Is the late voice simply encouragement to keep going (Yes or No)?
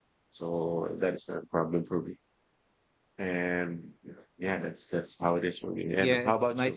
No